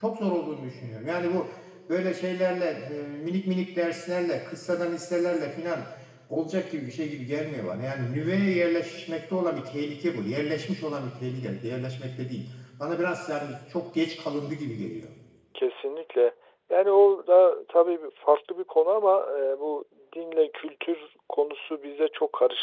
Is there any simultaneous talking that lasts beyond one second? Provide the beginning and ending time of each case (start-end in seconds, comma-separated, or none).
none